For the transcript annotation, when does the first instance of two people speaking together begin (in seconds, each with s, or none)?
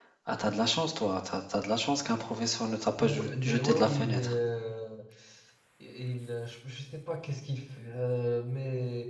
3.0 s